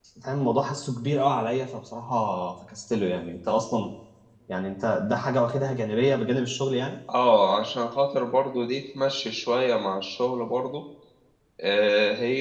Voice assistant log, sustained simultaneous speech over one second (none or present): none